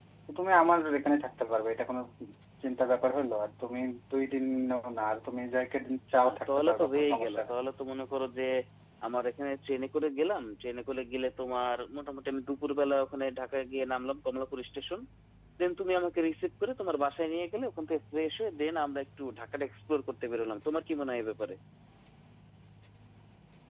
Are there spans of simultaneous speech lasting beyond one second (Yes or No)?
Yes